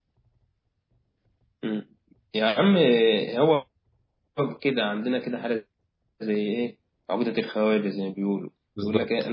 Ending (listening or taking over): listening